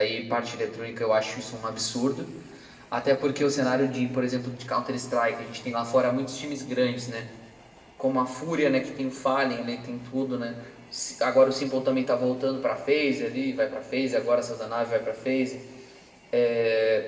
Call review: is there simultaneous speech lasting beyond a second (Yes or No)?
No